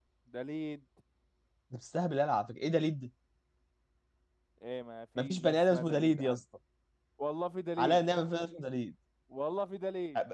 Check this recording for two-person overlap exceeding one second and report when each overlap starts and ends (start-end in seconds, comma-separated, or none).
5.2-6.4